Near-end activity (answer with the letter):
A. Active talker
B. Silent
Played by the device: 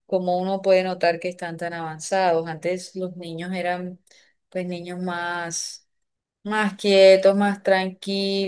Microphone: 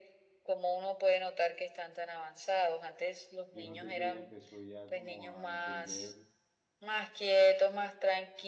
A